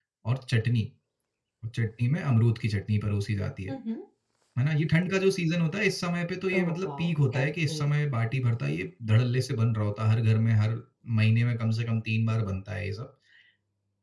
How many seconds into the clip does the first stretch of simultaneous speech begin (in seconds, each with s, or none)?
6.5 s